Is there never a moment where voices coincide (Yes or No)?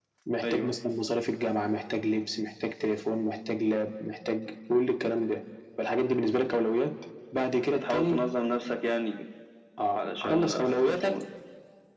No